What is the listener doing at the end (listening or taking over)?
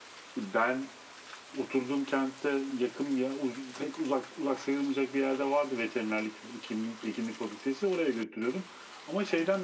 listening